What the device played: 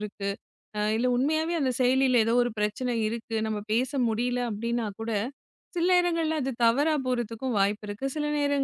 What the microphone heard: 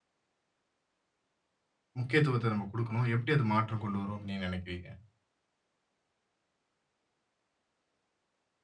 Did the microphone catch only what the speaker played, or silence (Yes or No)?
No